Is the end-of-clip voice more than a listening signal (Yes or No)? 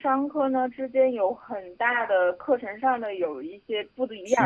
No